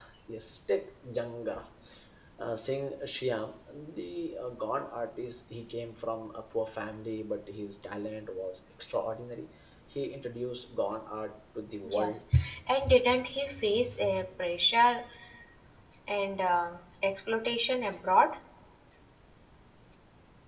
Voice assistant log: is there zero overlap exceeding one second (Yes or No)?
Yes